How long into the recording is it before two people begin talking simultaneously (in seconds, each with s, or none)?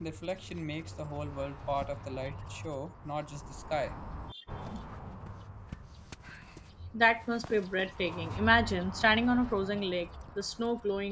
none